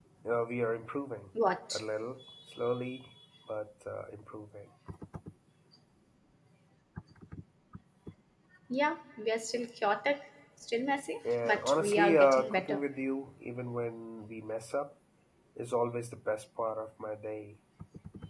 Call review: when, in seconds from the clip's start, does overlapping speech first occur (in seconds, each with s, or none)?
11.2 s